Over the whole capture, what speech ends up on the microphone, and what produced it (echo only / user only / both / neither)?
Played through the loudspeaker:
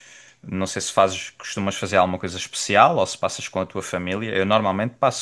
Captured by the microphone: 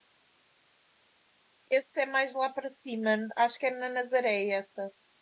user only